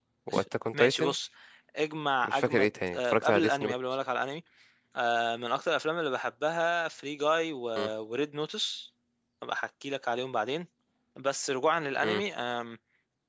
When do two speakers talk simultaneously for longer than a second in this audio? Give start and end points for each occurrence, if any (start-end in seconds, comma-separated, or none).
2.3-3.7